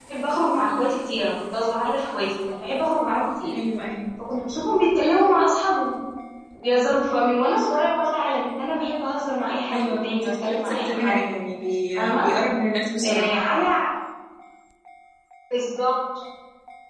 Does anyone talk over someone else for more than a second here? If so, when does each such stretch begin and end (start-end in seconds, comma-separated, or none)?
9.7-11.2